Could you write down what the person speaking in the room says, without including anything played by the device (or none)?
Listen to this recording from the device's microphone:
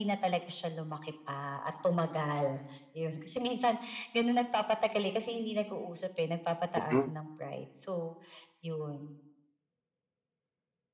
Mhm.